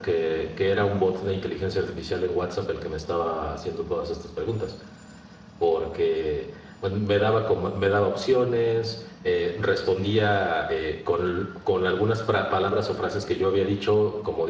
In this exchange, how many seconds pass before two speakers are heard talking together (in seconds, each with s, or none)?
none